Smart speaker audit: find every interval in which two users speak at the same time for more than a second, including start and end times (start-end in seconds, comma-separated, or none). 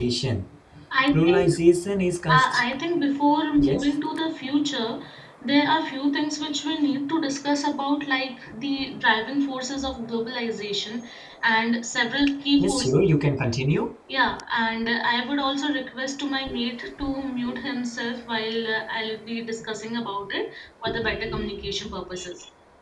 none